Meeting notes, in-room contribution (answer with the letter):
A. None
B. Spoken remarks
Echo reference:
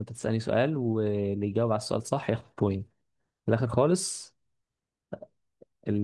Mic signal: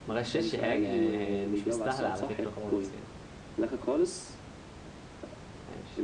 B